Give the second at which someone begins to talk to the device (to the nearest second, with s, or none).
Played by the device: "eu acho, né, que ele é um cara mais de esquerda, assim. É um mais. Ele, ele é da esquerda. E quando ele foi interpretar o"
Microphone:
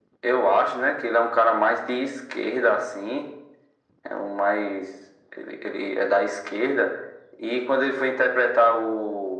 none